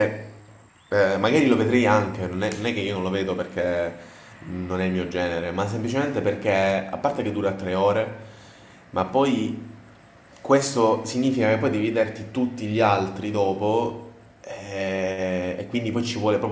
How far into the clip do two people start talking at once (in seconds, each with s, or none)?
none